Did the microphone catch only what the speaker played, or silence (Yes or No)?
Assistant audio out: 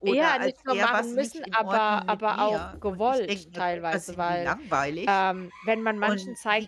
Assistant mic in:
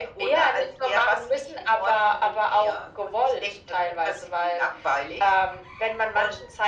Yes